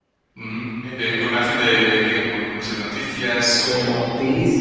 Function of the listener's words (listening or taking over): taking over